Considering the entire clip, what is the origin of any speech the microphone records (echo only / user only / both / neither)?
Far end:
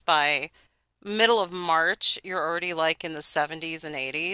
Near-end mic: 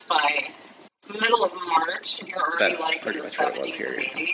both